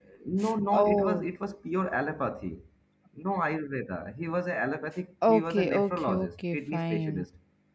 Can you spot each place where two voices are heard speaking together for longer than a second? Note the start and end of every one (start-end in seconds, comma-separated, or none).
5.3-7.2